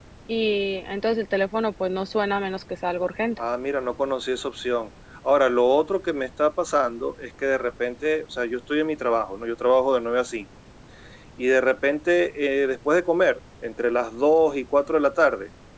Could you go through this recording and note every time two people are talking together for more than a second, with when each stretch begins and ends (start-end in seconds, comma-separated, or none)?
none